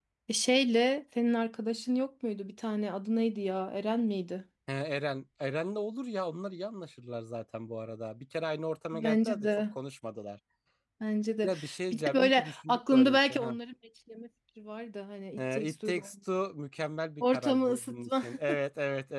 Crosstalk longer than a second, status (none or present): present